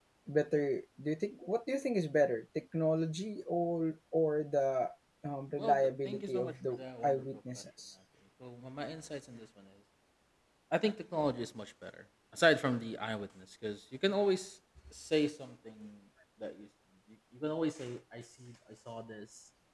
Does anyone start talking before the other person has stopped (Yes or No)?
Yes